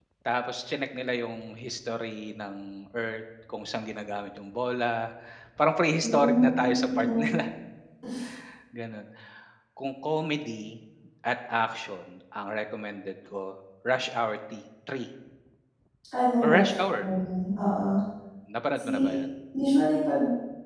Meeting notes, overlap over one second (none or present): present